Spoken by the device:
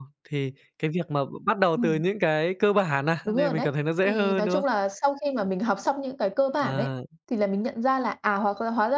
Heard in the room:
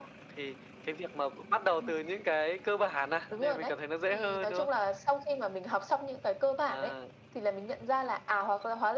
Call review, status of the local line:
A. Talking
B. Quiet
B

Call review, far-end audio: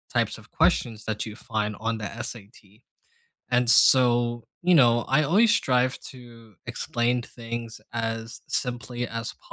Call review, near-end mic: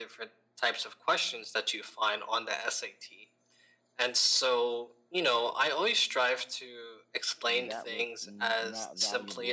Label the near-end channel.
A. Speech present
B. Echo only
A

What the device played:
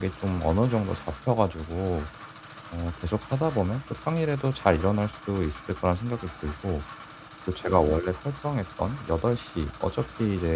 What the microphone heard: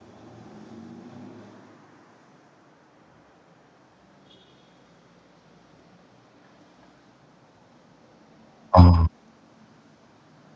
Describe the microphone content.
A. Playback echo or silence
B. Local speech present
B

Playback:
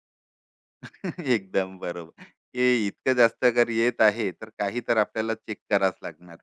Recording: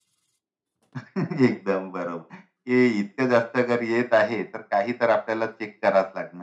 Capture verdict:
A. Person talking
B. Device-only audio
B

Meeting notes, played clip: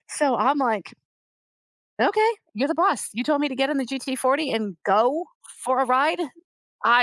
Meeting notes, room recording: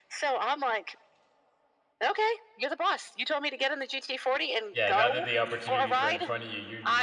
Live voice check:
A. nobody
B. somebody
B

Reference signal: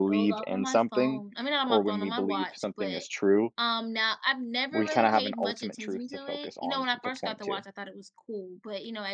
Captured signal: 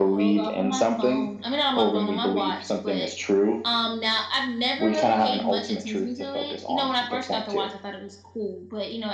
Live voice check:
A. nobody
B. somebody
A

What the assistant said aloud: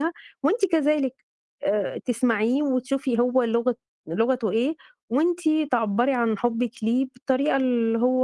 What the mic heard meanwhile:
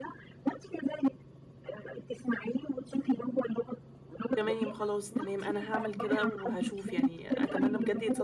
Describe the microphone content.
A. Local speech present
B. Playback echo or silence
A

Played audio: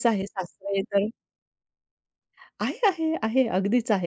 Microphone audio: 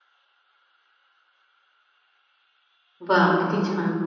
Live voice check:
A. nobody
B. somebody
B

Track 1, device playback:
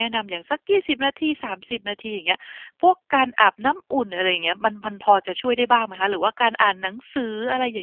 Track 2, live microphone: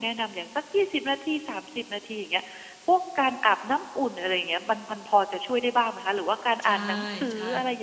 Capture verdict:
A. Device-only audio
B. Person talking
B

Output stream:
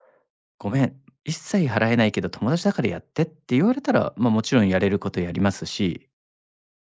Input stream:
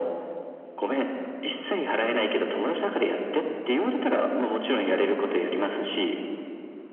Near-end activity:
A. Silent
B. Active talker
A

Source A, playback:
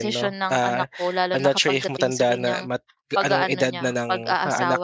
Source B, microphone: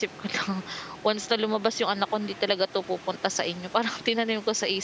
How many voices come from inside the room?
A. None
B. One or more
B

